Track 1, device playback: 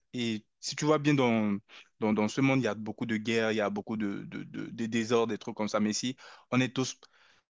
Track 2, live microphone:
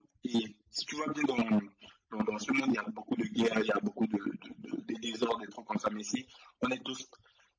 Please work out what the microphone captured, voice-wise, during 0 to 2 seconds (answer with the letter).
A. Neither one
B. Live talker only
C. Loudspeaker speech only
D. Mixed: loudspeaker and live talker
C